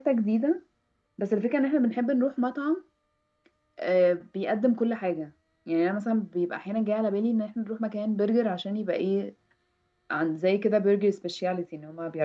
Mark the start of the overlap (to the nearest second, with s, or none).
none